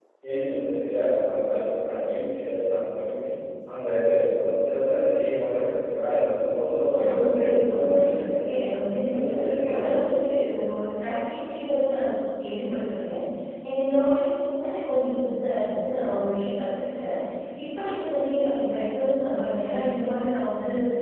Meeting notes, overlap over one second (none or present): present